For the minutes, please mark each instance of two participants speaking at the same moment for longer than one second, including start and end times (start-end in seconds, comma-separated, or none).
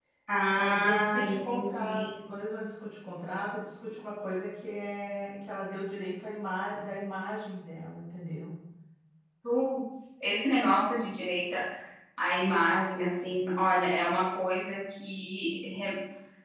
0.6-2.1